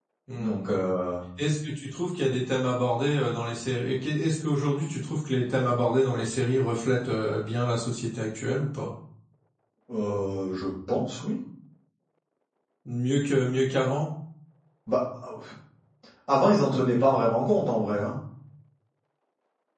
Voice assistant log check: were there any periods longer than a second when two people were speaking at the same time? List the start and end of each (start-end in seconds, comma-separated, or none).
none